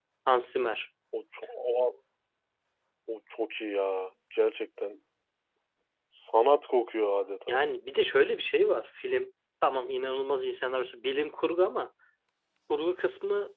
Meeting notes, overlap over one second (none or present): none